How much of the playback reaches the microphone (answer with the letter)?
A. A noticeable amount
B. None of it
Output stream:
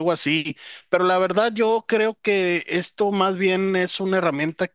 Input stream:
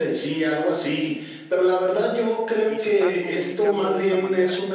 A